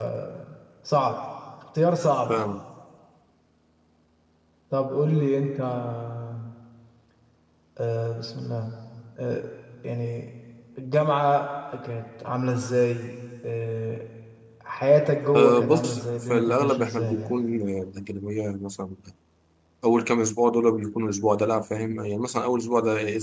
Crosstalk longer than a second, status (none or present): present